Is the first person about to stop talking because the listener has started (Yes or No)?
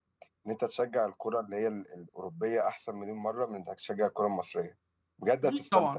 Yes